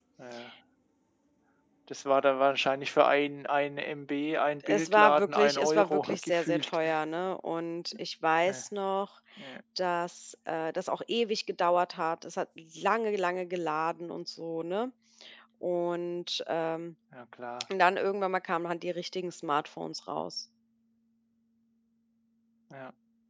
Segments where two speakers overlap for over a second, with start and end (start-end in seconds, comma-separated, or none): 4.6-6.8